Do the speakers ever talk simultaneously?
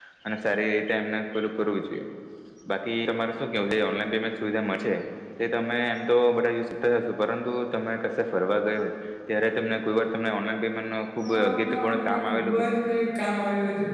Yes, from 11.2 s

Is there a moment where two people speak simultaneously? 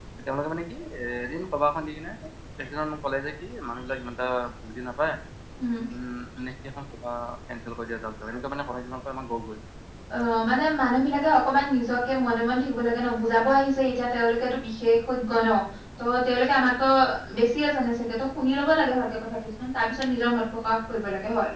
No

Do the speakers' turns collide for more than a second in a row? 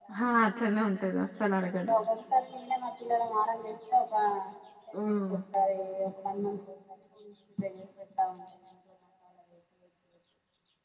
No

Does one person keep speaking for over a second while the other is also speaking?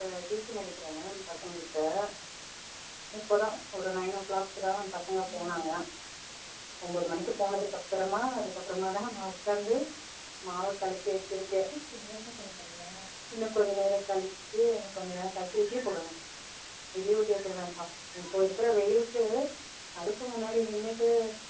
No

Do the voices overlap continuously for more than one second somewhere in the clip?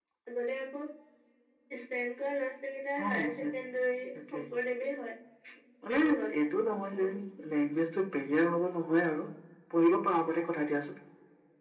No

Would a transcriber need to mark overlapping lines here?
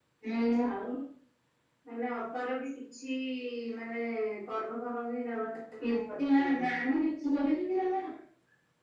Yes, from 5.8 s

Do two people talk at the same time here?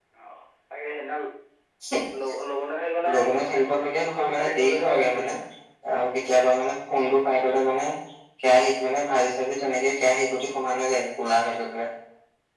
Yes, from 3.1 s

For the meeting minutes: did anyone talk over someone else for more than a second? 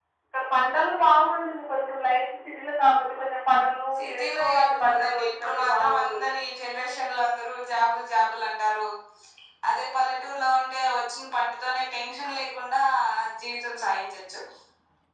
Yes, from 4.0 s

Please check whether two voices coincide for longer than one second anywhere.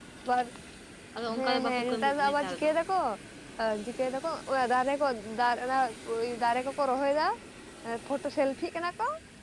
Yes, from 1.4 s

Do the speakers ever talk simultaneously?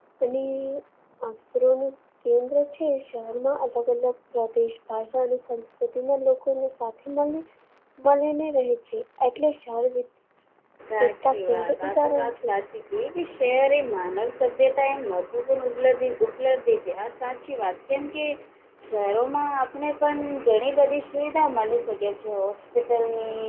Yes, from 11.1 s

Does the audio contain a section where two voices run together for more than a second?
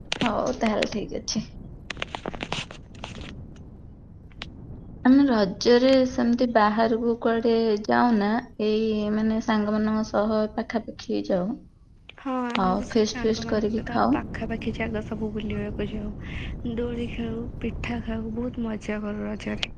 Yes, from 12.6 s

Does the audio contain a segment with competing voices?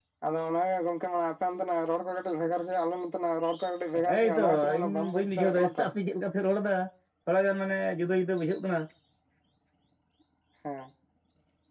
Yes, from 3.9 s

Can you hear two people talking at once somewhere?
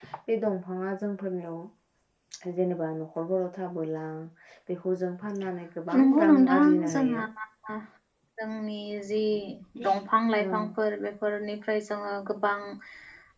Yes, from 6.0 s

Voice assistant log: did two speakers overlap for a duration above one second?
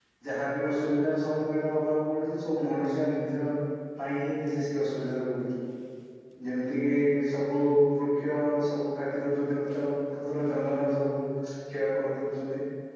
No

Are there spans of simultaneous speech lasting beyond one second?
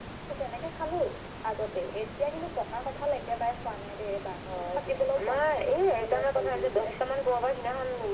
Yes, from 4.4 s

